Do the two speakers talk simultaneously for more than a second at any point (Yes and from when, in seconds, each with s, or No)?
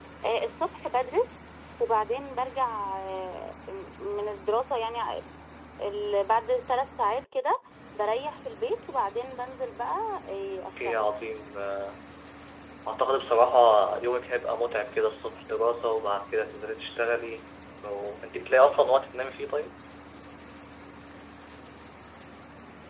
No